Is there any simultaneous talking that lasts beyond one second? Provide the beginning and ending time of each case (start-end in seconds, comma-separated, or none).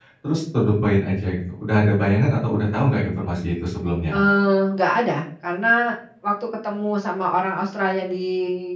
none